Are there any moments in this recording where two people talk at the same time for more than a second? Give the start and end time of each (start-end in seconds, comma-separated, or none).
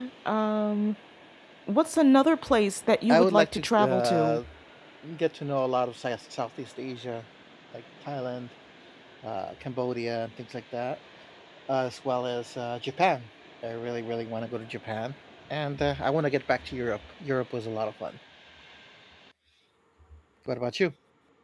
3.1-4.4